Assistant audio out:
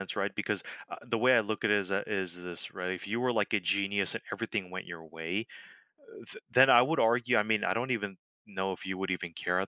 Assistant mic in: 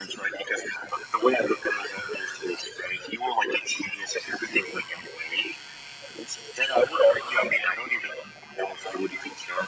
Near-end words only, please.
none

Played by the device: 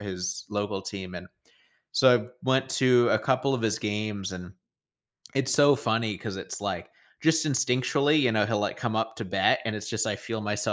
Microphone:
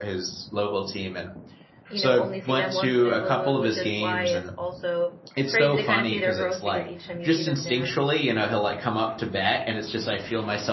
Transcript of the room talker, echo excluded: you know, only see them once in a blue moon, which is why it's also crazy to kind of see their growth because each time you see them, they're

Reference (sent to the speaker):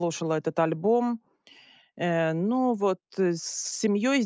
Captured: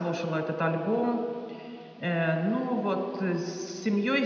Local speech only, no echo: none

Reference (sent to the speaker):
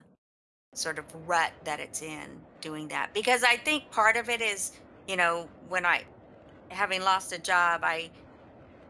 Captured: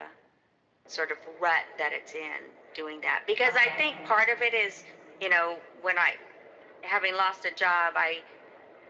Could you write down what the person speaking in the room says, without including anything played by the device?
okay

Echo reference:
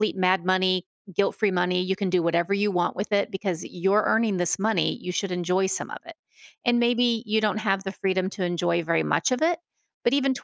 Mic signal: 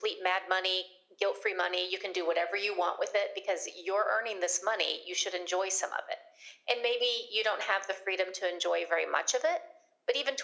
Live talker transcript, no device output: none

